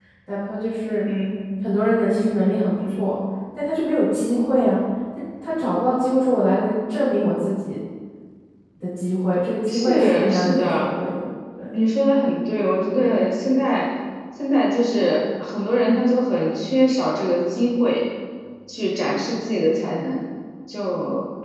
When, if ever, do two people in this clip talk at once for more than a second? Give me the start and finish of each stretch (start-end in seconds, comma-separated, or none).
9.7-10.9